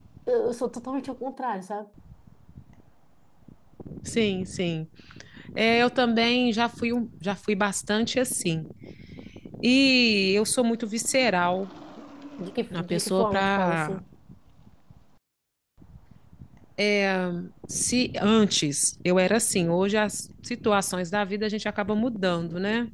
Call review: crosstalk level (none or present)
present